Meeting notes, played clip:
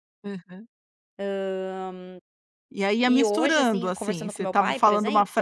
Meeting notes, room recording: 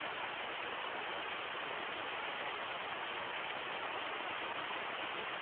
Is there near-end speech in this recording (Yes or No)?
No